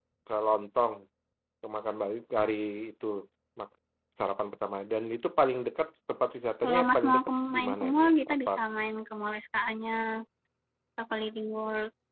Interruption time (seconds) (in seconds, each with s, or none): 6.6 s